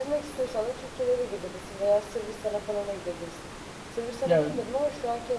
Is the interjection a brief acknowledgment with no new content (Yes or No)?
Yes